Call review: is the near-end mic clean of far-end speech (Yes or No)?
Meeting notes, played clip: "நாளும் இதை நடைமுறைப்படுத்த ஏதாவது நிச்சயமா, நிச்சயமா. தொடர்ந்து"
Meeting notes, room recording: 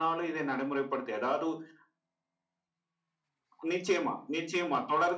No